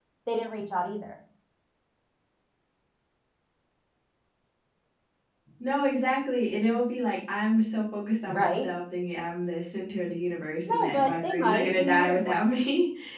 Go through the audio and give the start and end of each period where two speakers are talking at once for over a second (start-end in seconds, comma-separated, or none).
10.7-12.4